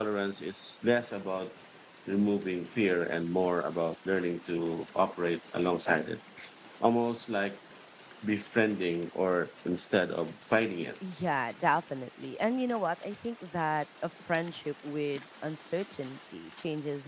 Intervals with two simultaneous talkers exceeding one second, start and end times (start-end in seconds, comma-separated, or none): none